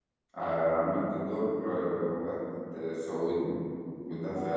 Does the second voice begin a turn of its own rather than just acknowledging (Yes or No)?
No